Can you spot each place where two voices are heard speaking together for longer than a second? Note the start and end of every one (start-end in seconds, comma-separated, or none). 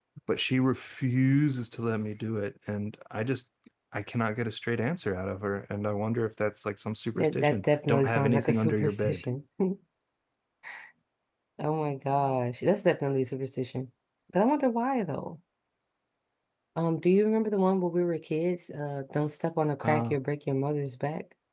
7.2-9.2